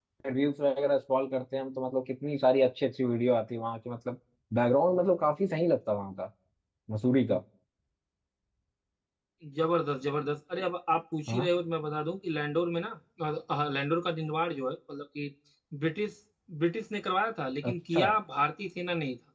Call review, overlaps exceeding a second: none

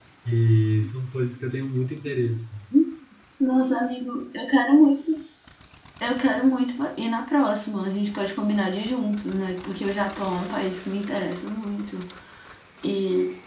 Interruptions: none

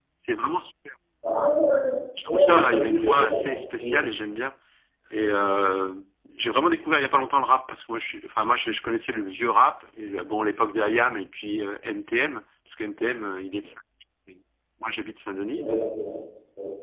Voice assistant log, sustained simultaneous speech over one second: present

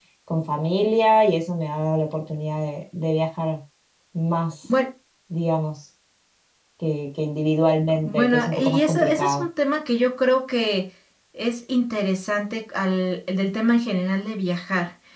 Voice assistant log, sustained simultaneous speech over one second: present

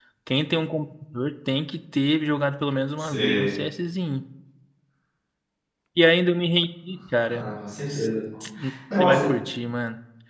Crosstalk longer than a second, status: none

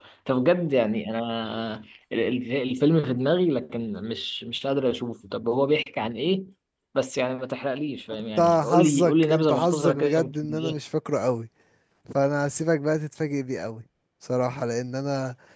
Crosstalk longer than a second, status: present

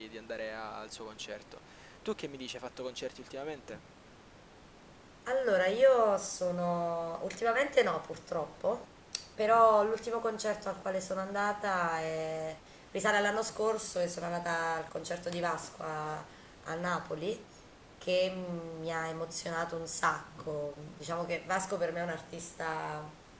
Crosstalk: none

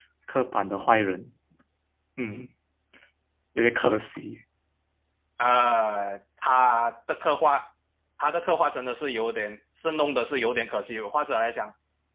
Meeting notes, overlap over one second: none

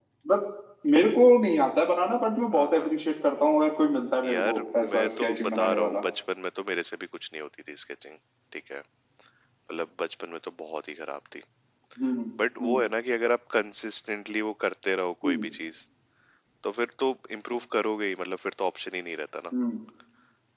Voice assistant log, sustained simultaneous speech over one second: present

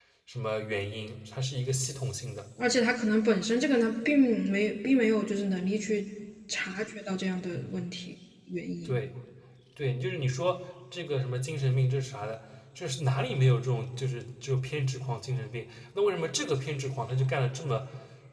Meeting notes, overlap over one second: none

